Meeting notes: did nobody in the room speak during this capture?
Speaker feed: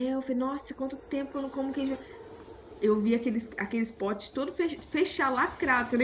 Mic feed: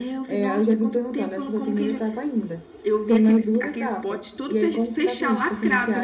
No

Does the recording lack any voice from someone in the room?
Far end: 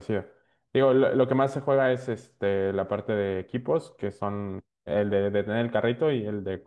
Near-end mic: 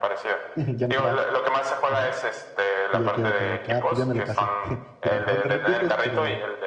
No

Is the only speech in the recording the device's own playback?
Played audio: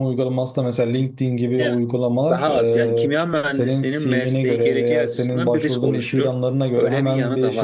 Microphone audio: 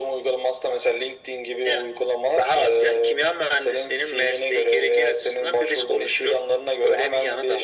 Yes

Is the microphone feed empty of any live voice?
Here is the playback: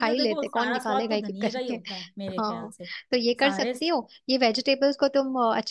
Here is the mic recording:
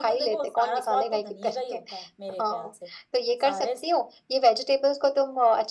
Yes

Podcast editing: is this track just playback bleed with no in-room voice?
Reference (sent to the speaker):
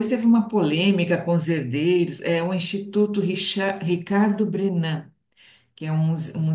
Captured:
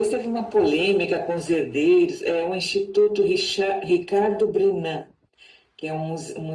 Yes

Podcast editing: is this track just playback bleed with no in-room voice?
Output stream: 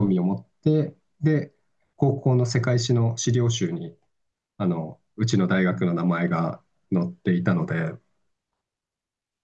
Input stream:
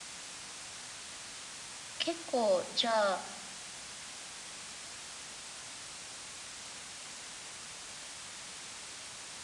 No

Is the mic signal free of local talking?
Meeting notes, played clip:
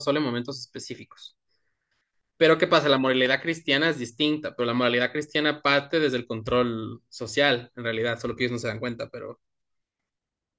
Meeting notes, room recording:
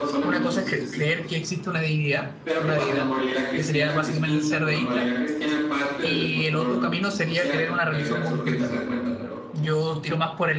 No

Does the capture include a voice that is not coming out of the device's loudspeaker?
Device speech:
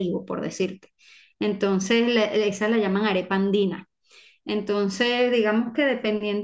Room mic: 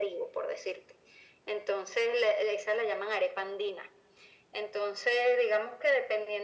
No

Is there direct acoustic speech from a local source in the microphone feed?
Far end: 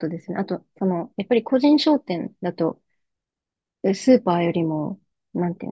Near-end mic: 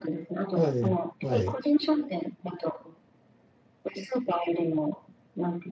Yes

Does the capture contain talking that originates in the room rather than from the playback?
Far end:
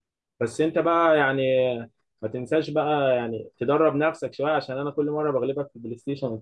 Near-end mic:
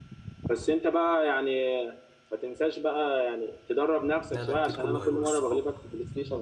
Yes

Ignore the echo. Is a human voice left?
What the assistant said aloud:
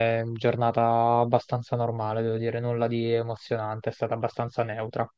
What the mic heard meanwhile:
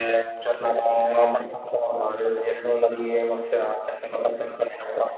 No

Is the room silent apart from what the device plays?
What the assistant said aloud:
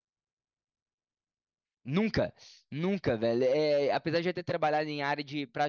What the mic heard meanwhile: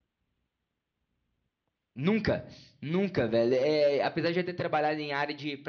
Yes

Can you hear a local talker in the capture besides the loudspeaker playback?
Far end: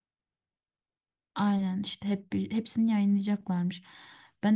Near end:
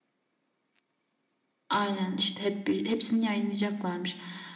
No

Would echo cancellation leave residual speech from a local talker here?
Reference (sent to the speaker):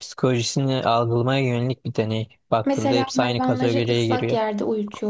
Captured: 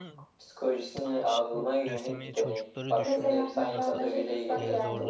Yes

